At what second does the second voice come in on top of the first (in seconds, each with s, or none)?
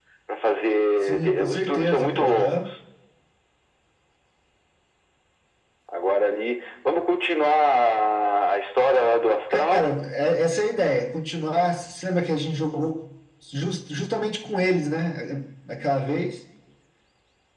1.0 s